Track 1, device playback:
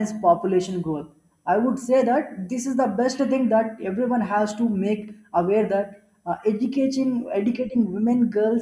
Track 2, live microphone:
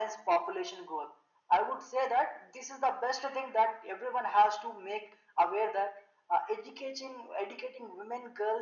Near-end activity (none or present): none